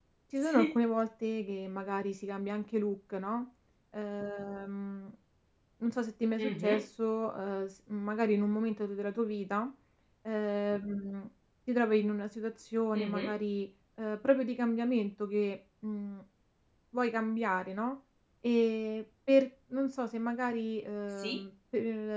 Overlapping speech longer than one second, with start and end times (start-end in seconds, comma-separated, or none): none